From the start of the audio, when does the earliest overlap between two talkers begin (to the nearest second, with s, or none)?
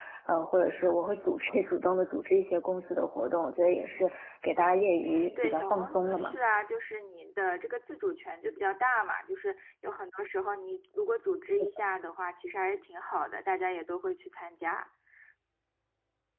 5 s